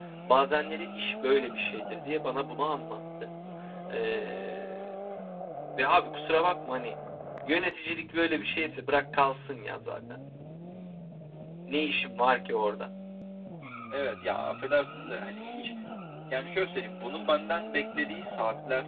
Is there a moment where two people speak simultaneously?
No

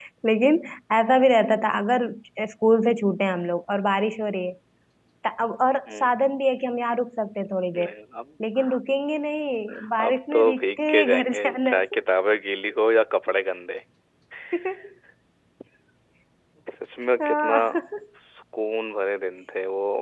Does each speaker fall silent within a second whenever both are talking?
No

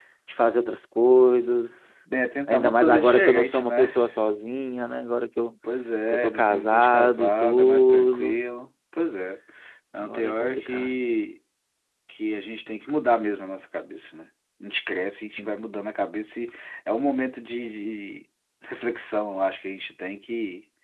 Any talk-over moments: Yes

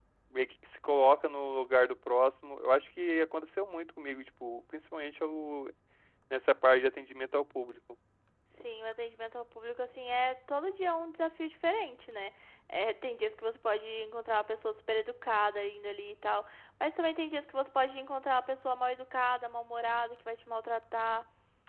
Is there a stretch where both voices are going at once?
No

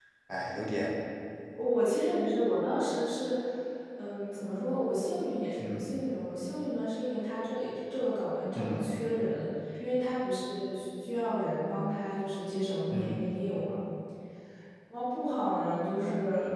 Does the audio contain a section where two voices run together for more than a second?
No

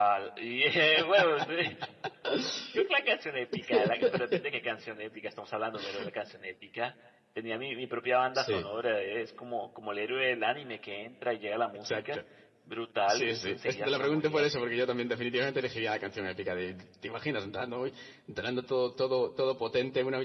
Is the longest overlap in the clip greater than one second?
Yes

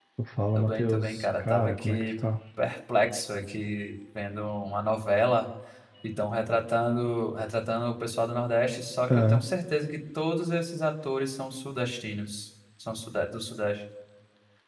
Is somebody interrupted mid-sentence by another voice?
Yes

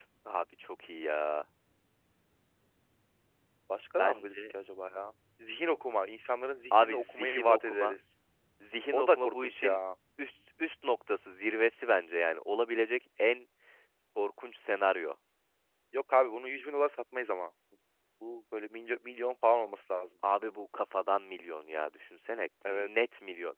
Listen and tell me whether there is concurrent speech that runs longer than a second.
Yes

